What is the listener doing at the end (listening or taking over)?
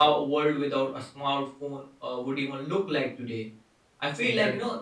listening